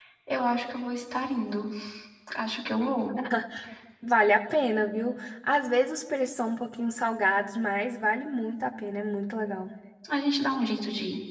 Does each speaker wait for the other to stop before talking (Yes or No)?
Yes